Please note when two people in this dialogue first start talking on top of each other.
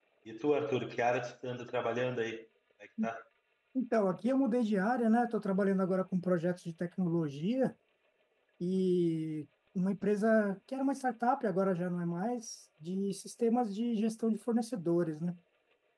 none

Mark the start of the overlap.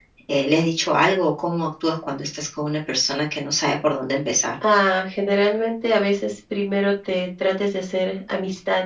none

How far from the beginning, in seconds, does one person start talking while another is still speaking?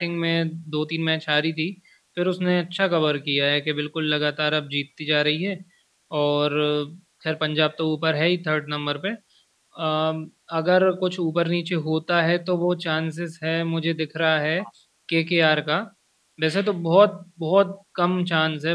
none

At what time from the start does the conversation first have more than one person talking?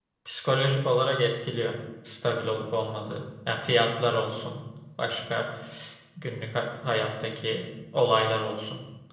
none

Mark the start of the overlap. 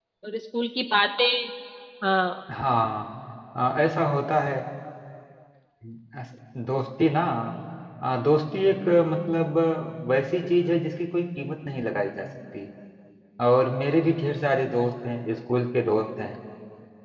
none

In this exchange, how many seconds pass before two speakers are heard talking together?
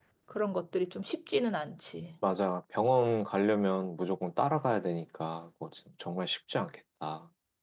none

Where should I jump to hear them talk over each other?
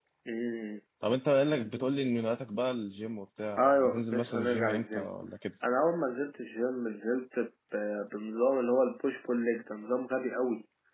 3.6 s

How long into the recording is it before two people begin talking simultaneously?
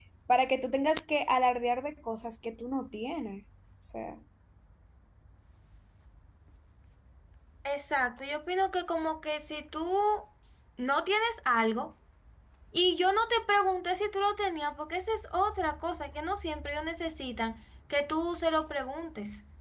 none

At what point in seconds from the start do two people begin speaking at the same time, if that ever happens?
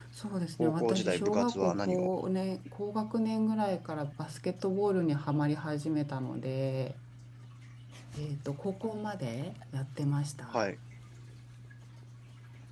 0.6 s

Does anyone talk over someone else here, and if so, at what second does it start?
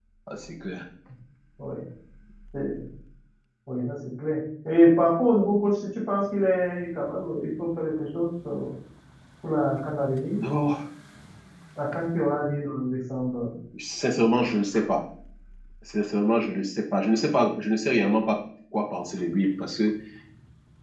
none

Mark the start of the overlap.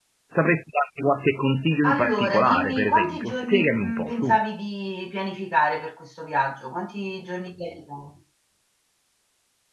1.8 s

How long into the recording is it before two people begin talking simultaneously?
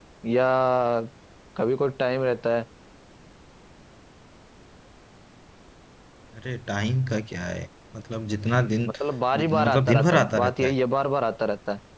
9.4 s

